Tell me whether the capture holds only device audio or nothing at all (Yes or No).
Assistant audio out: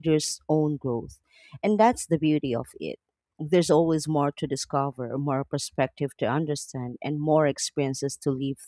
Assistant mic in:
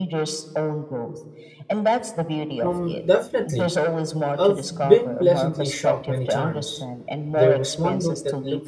No